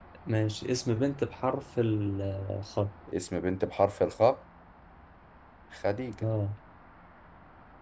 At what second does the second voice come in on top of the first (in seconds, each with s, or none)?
none